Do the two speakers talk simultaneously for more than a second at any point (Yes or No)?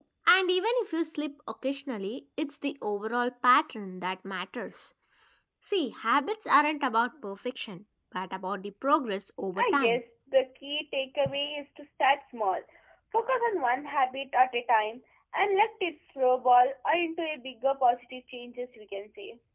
No